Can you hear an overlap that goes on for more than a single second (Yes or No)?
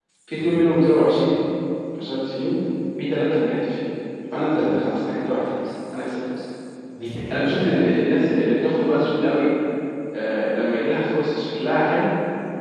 No